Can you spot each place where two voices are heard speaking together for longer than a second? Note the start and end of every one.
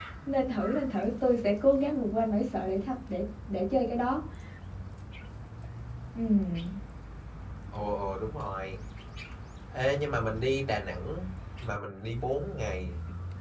none

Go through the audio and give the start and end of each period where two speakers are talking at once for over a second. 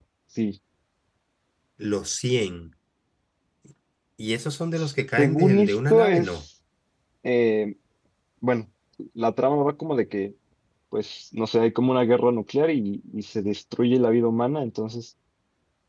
5.2-6.4

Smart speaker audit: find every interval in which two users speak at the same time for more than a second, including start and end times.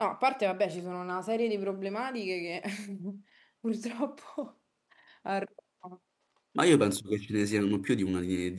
none

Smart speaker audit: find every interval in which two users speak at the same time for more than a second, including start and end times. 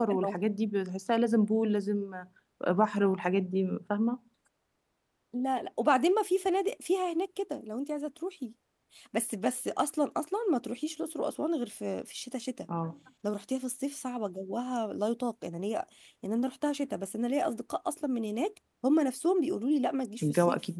none

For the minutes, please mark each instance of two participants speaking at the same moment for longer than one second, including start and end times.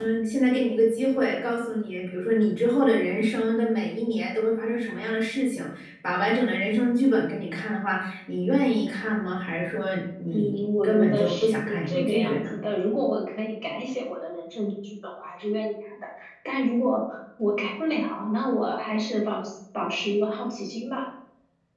10.3-12.6

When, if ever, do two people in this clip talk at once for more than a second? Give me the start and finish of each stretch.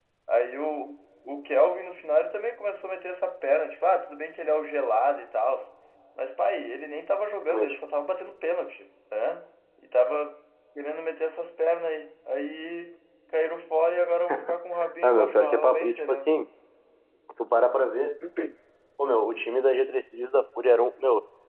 15.0-16.3

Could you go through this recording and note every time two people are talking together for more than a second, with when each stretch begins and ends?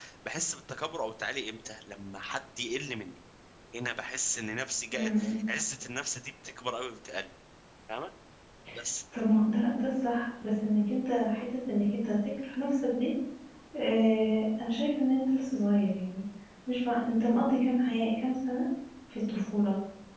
none

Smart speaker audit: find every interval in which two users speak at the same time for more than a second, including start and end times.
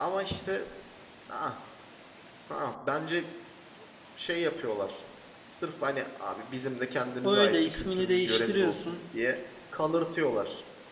7.2-9.0

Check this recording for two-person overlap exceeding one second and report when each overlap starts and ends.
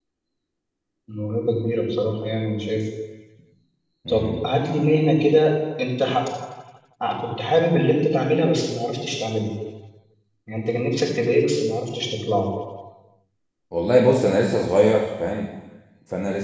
none

